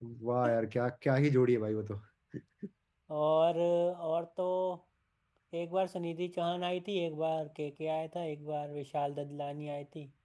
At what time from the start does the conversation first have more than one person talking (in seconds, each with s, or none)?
none